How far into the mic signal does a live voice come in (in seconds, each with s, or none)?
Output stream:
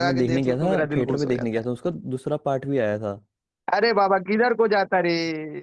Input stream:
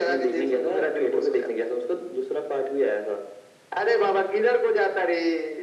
none